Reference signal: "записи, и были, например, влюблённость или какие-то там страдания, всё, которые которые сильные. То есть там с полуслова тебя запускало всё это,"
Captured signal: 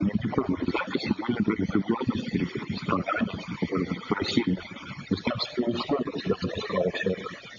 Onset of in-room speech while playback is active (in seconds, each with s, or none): none